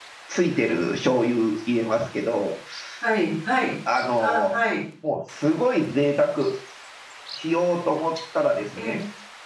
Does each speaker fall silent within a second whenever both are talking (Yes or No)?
Yes